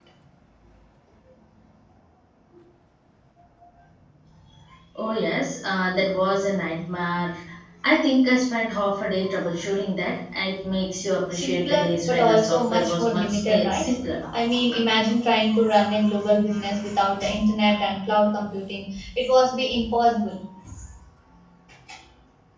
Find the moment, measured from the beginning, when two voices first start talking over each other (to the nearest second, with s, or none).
11 s